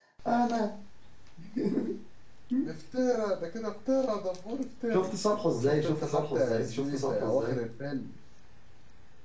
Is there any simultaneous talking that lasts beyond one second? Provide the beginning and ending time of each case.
5.5-7.6

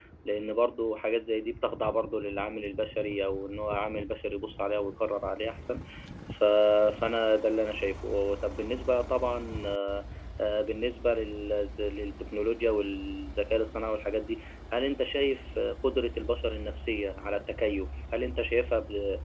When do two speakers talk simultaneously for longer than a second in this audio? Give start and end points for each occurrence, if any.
none

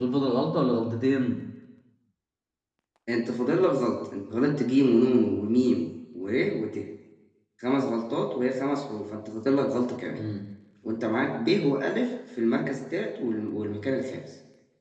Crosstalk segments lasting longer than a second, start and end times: none

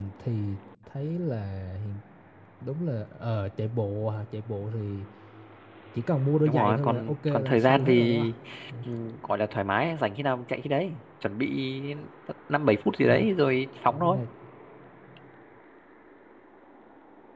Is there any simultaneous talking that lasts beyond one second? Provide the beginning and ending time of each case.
6.4-8.2

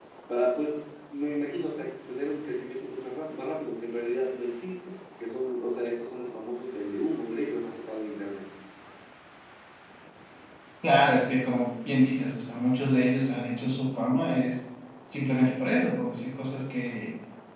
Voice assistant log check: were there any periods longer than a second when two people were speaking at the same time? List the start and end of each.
none

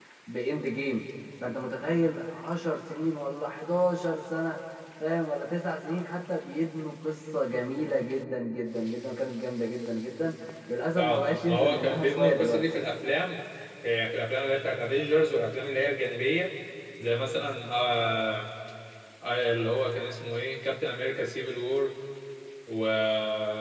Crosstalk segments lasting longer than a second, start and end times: 11.0-12.6

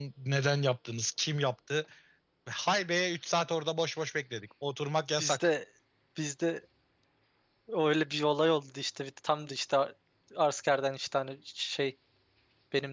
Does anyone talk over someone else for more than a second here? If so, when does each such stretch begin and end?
none

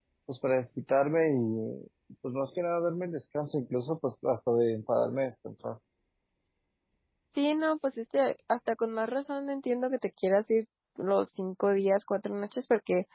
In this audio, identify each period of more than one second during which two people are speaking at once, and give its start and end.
none

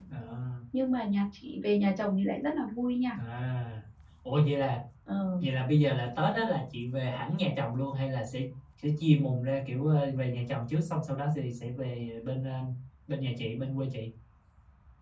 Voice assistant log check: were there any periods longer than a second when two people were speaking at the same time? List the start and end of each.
none

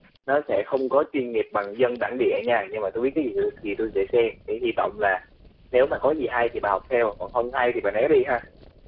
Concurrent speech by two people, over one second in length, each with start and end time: none

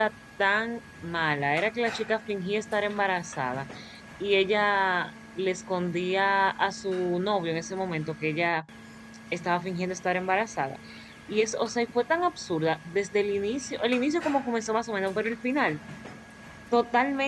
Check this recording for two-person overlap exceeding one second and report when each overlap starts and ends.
none

